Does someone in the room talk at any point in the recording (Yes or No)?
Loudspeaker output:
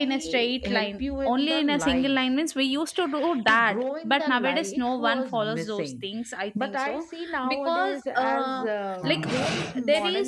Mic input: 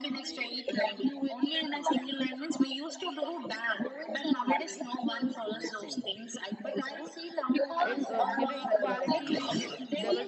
Yes